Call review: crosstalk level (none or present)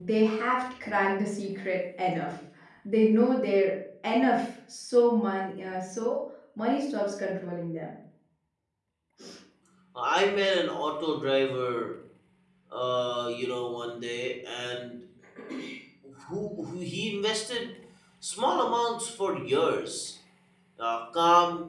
none